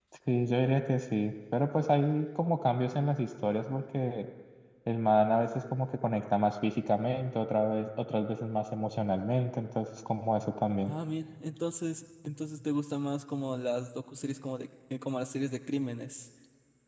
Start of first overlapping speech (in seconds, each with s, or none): none